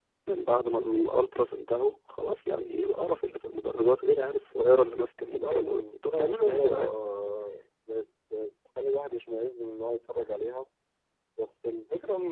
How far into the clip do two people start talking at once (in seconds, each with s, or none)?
5.4 s